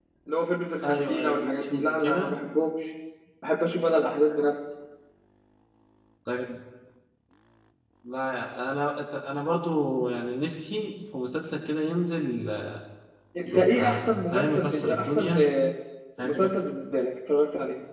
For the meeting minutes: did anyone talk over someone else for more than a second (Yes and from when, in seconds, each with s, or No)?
Yes, from 0.8 s